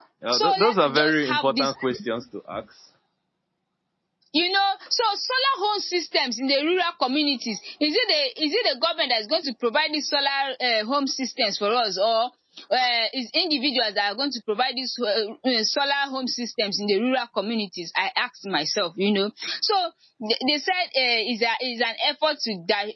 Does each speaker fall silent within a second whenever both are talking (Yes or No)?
No